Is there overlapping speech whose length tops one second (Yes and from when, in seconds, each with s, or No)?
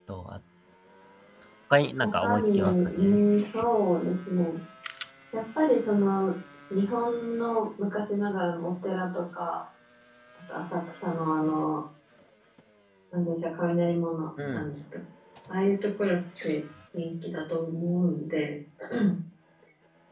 Yes, from 2.0 s